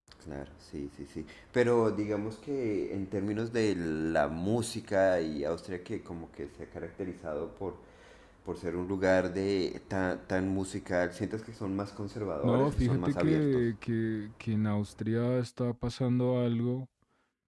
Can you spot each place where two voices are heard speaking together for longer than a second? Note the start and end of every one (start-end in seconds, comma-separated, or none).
12.4-13.6